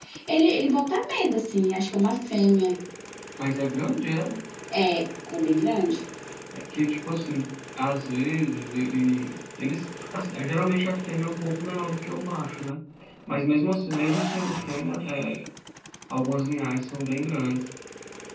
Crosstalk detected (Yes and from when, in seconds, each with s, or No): No